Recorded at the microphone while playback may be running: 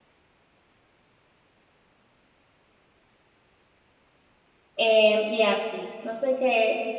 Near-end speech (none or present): present